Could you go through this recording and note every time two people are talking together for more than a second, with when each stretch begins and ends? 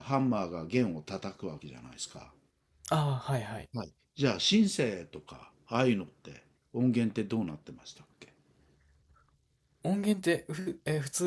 none

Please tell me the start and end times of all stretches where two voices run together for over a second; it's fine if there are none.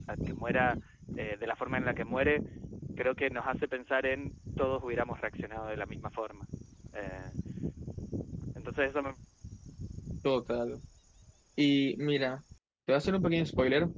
none

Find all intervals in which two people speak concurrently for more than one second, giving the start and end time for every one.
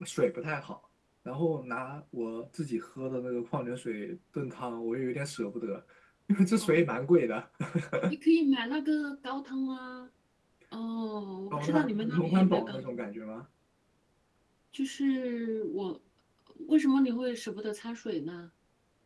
11.5-12.8

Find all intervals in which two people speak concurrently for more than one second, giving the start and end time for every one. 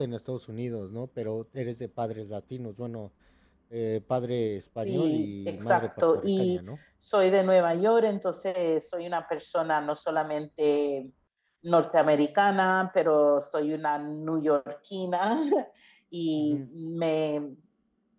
4.8-6.6

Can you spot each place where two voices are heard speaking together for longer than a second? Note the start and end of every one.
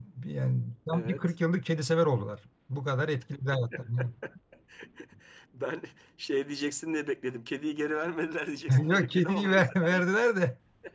8.7-10.0

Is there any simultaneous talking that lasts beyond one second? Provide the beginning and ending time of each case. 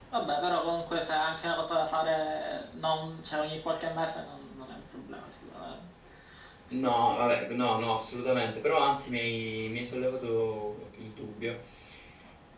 none

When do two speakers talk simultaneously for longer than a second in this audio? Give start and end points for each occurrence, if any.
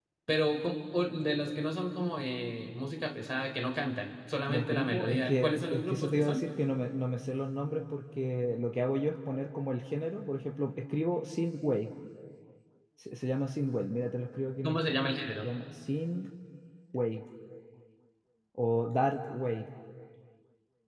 4.5-6.4

